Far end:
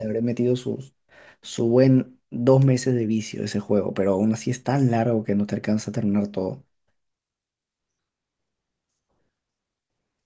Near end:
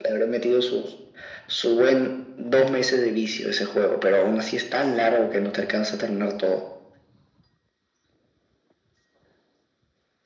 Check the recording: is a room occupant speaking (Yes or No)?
No